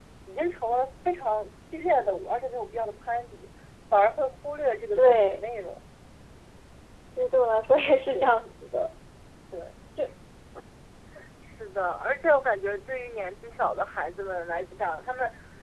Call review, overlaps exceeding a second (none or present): none